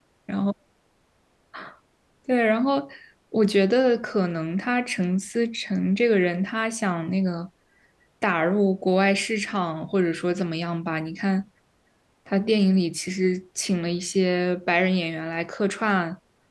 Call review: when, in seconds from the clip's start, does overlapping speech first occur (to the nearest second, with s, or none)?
none